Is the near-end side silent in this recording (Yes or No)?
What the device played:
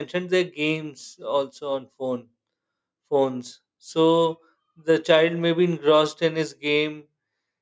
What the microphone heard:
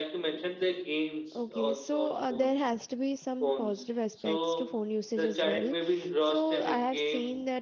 No